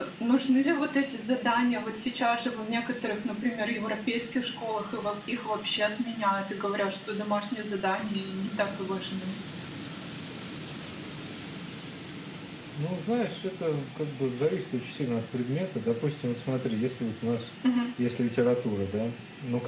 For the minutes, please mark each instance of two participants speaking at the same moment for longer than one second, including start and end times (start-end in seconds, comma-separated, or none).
none